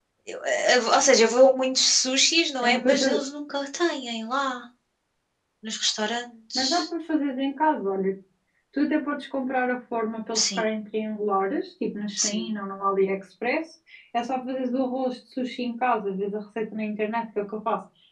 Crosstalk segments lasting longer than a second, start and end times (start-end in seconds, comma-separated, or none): none